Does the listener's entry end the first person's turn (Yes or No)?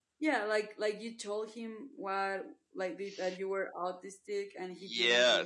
Yes